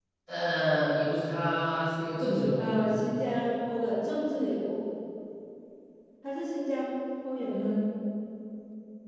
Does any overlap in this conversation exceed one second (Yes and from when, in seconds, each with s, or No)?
No